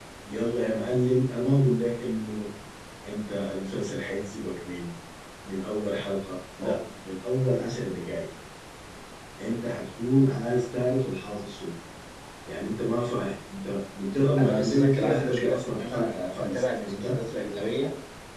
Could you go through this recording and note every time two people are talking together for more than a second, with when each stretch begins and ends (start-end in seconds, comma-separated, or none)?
14.4-17.2